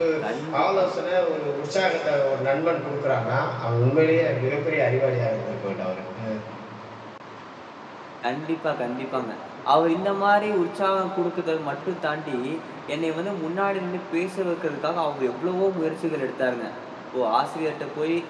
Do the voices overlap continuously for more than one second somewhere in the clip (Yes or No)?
No